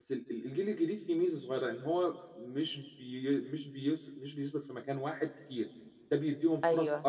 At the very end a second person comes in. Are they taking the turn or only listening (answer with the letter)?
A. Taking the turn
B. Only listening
B